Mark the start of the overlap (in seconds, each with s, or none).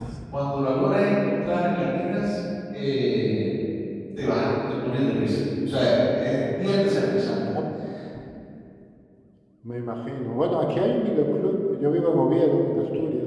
none